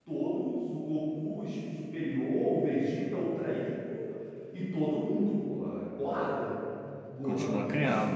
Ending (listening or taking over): taking over